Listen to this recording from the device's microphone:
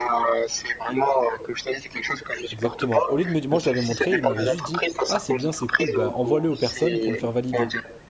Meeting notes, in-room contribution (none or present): present